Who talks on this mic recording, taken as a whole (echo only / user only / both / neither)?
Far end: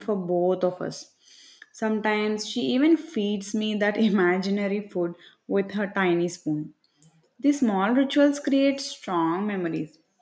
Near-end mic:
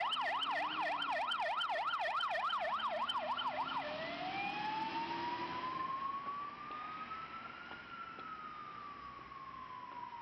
neither